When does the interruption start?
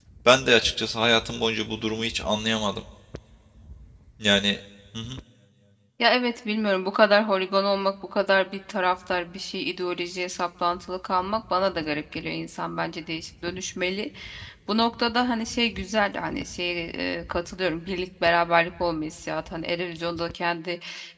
none

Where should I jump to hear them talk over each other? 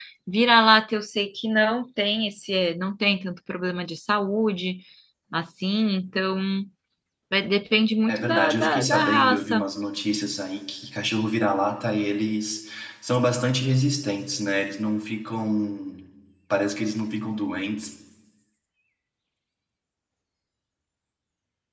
8.1 s

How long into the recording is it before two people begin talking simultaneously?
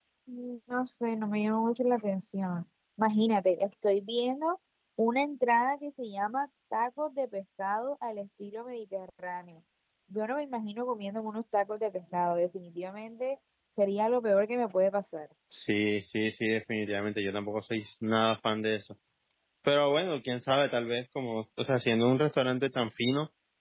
none

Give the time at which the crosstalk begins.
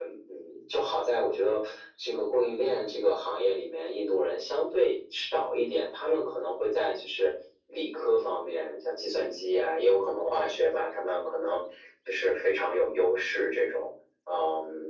none

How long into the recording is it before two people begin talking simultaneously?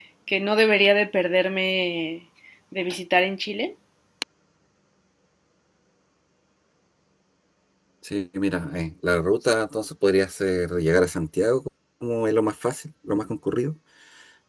none

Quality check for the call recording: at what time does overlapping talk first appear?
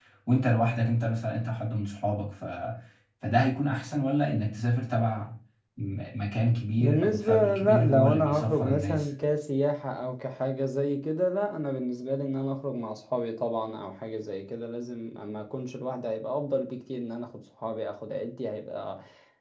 6.8 s

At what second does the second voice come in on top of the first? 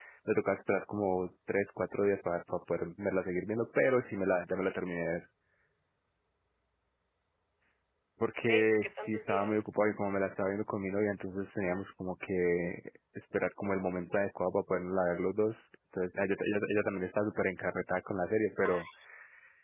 8.4 s

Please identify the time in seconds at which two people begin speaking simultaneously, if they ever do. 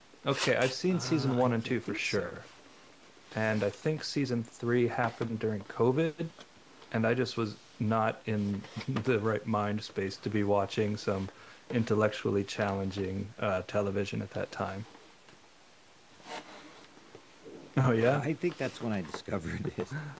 0.9 s

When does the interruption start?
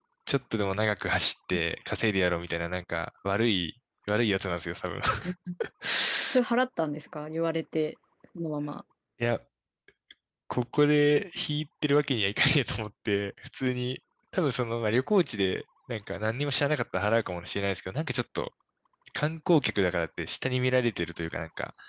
none

